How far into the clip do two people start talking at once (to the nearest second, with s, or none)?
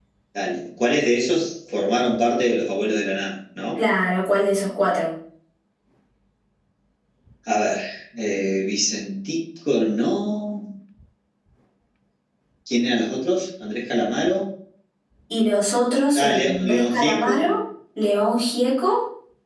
16 s